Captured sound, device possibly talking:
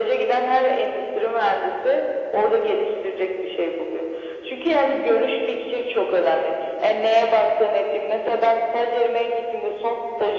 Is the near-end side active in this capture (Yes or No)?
No